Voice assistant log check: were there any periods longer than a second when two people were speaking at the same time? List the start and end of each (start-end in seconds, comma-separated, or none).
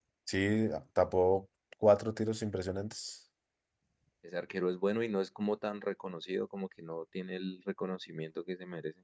none